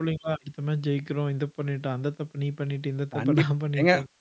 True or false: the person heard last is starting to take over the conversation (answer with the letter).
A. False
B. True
B